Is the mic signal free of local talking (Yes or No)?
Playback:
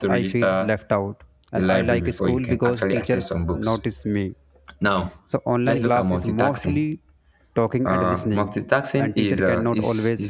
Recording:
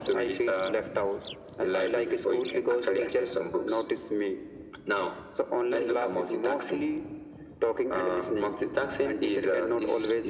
Yes